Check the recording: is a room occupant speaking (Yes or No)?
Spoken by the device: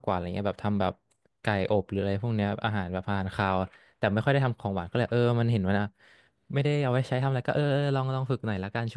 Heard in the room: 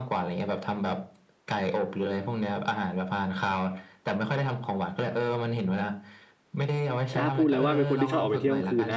Yes